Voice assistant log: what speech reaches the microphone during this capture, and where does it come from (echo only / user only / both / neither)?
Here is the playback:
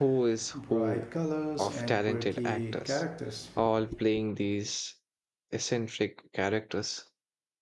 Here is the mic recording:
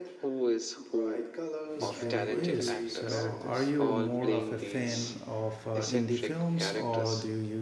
both